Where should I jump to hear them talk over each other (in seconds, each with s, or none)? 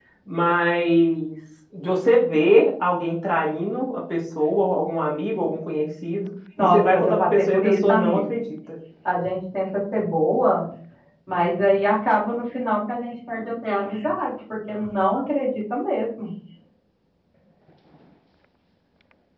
6.6 s